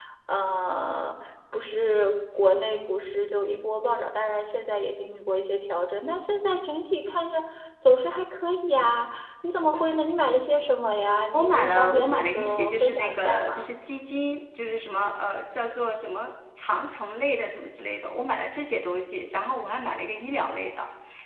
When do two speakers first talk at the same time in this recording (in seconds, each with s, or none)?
11.3 s